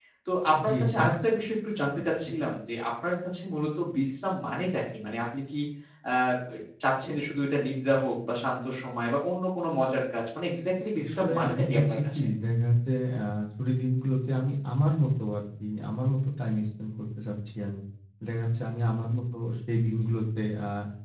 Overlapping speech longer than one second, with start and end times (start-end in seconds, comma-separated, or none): 11.0-12.2